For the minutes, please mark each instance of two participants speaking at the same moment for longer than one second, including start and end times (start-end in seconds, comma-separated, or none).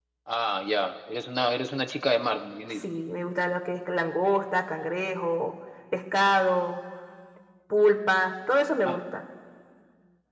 none